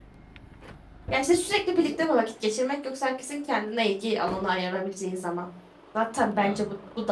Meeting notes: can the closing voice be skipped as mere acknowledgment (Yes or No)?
Yes